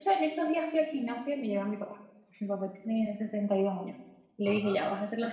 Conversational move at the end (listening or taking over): listening